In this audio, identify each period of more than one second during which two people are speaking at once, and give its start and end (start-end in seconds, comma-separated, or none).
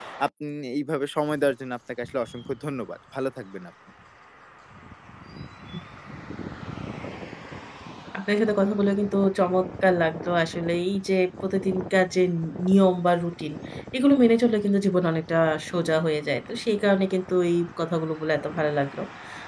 none